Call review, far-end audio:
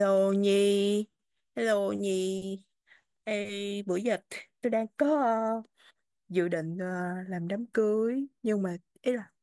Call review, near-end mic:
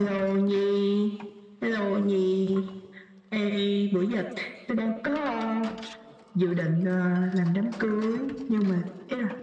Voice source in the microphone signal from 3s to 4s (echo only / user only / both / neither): echo only